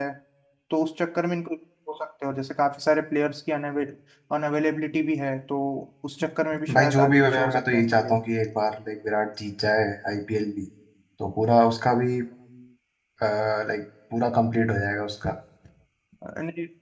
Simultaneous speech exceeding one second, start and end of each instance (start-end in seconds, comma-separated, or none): 6.7-8.2